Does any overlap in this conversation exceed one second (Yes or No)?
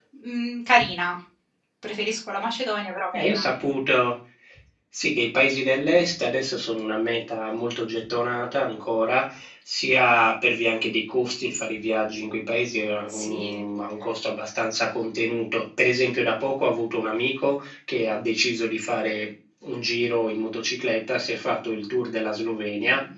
No